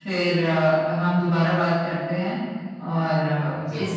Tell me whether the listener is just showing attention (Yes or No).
Yes